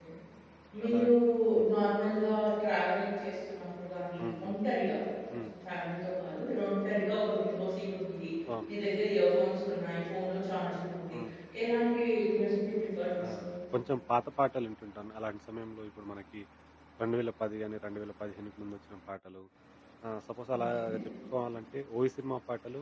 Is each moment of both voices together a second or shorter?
Yes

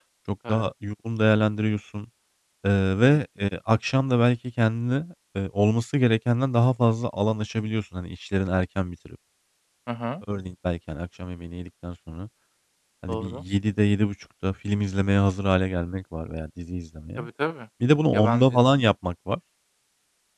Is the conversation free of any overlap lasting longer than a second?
Yes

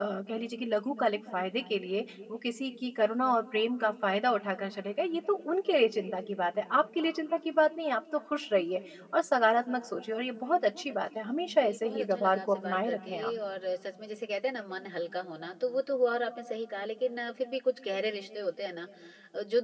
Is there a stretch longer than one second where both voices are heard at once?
Yes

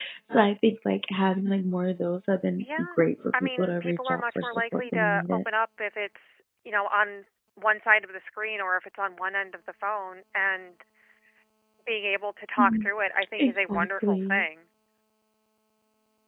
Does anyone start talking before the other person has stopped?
Yes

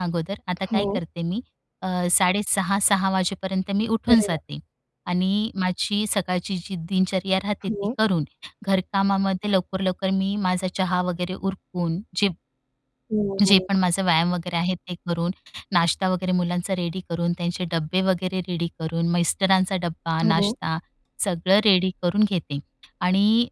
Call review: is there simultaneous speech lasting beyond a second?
No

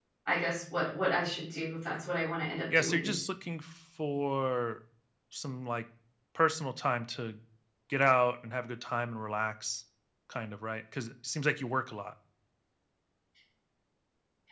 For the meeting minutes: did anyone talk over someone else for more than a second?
No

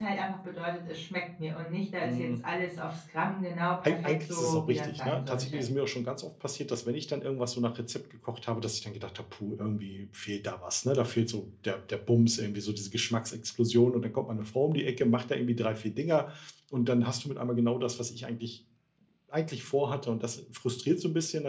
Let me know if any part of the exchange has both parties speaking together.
Yes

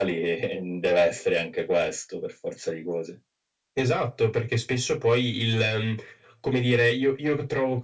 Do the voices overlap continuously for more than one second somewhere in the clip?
No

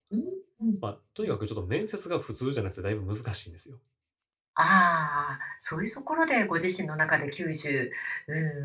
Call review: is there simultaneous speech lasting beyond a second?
No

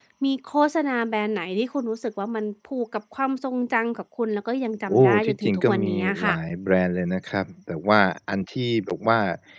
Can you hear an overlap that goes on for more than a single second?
Yes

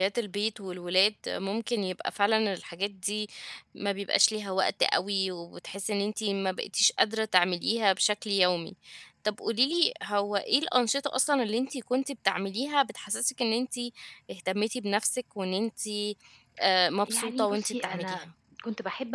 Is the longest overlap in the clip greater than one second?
Yes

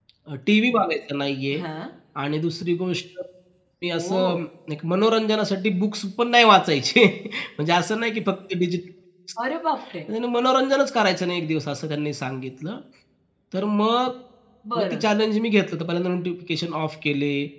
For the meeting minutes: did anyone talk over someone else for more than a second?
No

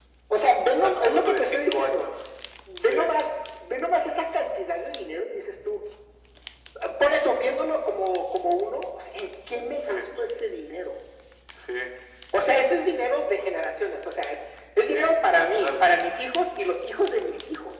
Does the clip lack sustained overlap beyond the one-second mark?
No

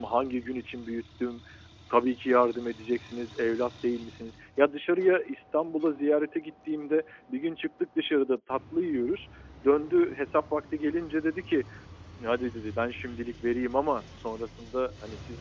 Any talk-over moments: No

